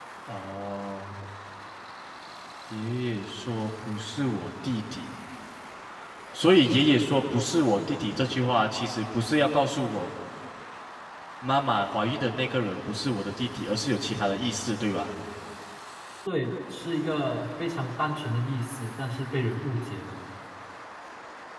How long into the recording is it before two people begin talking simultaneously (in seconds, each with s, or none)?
none